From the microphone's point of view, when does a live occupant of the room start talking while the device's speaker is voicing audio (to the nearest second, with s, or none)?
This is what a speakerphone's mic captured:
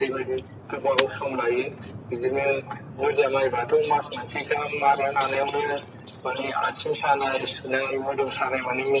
none